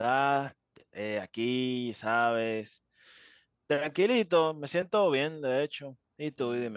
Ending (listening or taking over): taking over